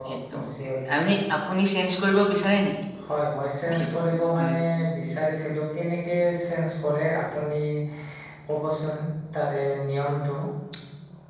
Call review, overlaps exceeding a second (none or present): none